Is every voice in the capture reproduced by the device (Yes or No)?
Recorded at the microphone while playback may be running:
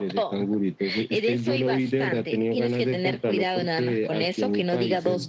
Yes